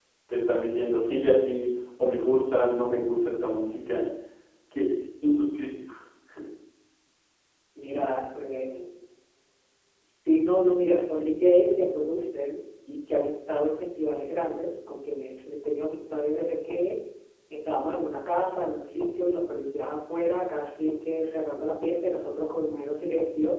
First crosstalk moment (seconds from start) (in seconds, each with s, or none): none